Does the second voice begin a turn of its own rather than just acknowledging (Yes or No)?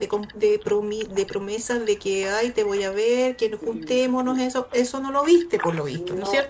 Yes